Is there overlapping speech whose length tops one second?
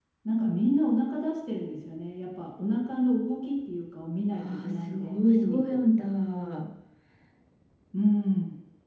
Yes, from 4.3 s

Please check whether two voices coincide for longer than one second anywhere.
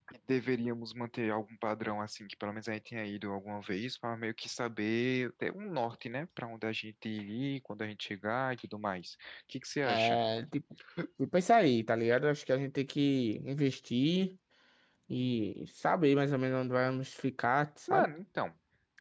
No

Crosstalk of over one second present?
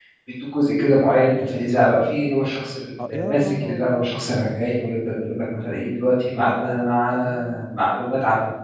Yes, from 3.1 s

